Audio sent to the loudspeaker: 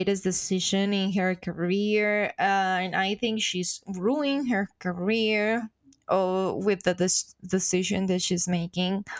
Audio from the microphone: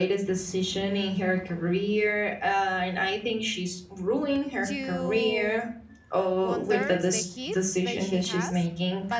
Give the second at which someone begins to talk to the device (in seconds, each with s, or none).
4.6 s